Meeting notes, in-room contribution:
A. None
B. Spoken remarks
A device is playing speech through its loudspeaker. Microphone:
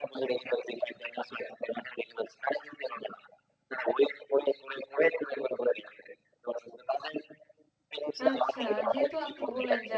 B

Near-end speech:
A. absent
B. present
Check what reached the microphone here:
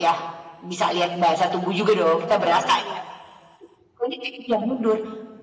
B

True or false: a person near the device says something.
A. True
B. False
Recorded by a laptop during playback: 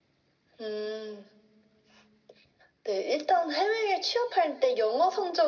B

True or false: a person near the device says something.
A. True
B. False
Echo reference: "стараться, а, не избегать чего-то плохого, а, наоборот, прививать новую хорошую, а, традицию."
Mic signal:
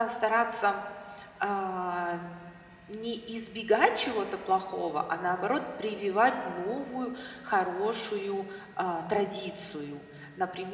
B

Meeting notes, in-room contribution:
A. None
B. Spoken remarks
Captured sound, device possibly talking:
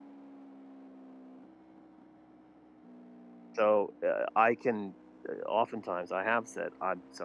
B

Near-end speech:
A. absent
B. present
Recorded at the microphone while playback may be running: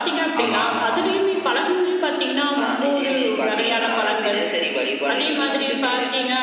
B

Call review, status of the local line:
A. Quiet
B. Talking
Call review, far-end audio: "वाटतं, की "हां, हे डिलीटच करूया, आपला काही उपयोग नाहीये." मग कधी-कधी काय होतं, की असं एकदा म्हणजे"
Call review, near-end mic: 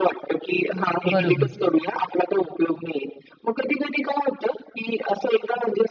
B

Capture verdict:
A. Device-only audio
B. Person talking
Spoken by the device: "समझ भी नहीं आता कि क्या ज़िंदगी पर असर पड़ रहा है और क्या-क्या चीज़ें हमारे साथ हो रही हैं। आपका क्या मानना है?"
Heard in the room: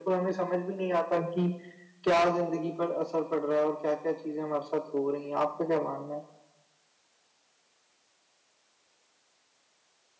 A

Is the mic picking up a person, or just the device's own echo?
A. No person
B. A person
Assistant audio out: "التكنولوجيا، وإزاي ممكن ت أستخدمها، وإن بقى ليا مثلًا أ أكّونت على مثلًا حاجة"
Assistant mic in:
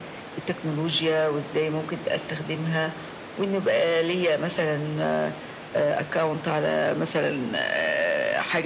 A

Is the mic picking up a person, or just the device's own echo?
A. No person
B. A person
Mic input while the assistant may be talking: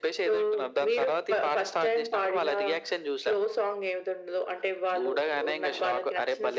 A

